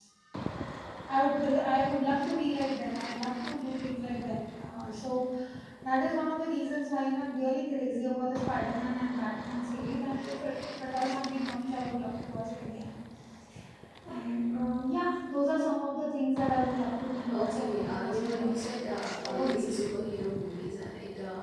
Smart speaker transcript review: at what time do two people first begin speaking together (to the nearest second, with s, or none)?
17 s